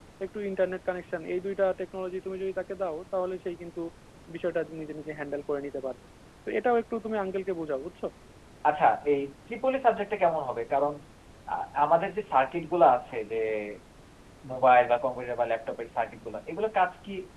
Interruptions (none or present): none